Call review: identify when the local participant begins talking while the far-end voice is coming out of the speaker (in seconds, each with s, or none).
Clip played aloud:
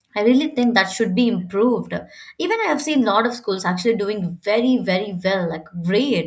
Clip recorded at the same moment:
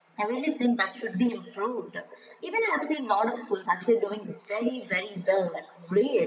none